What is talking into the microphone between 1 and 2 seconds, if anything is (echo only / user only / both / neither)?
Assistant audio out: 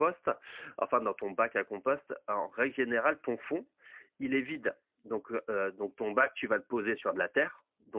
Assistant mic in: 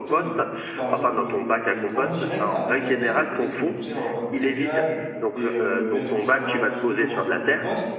both